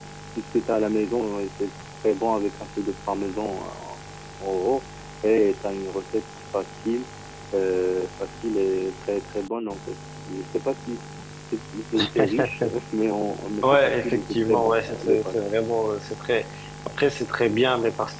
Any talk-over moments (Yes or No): Yes